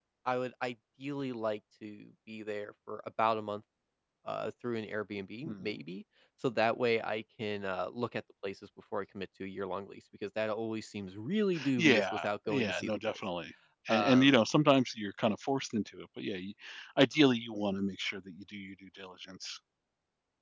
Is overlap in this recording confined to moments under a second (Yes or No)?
No